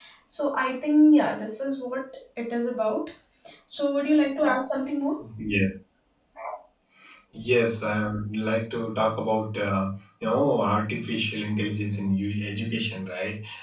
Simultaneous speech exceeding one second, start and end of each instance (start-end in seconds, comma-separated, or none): none